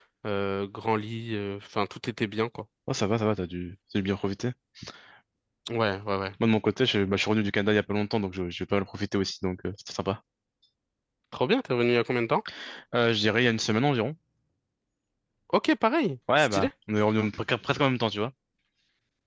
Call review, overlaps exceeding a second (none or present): none